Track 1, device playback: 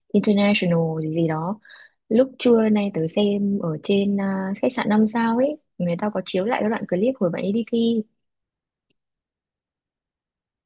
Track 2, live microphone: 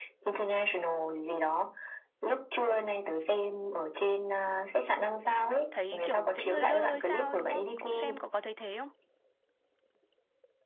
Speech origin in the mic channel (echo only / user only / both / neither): both